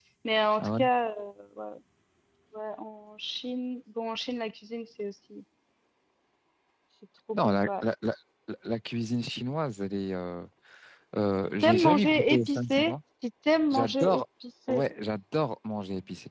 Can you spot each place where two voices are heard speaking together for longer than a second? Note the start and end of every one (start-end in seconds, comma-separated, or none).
11.6-12.9